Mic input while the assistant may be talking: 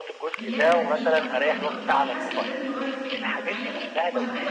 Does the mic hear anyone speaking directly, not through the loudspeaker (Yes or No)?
Yes